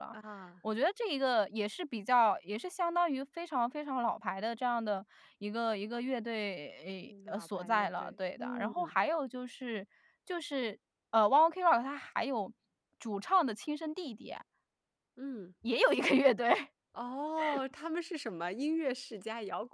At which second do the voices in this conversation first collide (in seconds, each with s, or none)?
7.1 s